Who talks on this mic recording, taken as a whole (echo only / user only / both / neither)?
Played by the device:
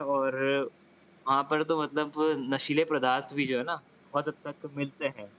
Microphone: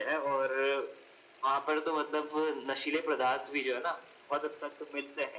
echo only